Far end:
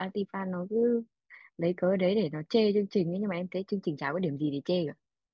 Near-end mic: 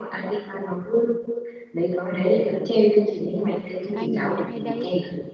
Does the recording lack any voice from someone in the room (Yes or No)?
No